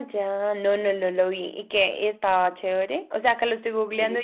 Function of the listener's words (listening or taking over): listening